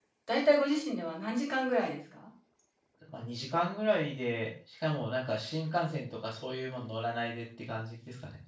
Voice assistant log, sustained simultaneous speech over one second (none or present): none